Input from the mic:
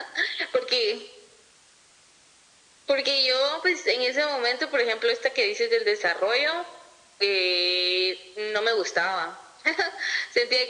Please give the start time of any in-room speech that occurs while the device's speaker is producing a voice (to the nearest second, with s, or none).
none